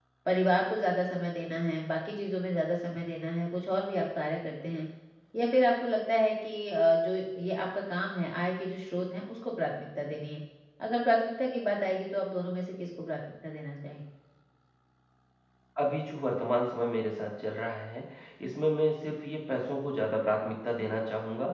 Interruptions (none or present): none